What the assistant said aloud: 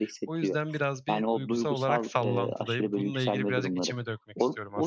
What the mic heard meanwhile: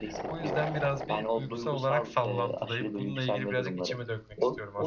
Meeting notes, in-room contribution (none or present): none